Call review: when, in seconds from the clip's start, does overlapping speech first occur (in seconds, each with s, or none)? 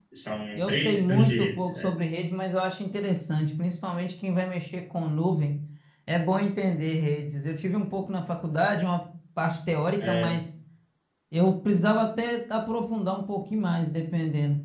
0.6 s